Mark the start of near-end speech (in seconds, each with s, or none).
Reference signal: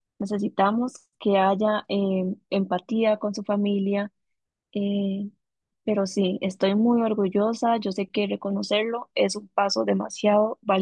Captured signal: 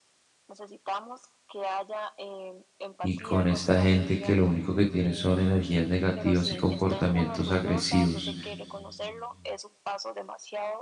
3.0 s